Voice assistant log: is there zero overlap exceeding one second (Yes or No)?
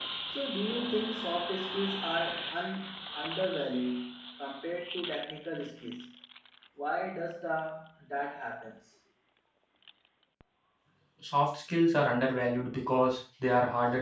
Yes